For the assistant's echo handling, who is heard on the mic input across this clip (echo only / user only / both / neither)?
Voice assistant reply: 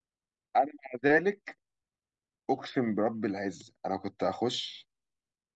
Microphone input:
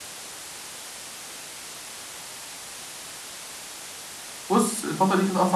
user only